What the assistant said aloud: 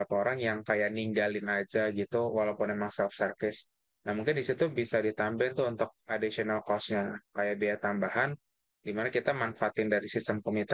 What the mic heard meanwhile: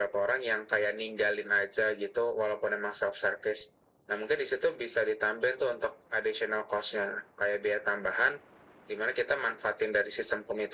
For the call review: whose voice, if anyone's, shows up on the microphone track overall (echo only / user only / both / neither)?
echo only